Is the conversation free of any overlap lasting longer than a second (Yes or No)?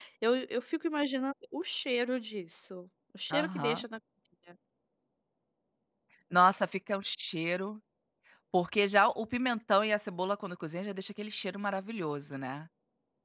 Yes